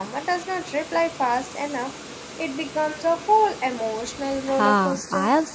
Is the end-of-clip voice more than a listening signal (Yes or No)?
Yes